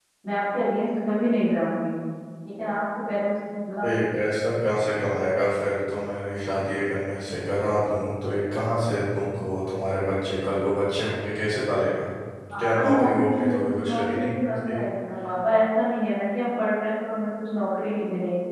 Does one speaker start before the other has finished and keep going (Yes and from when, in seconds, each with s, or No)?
Yes, from 12.6 s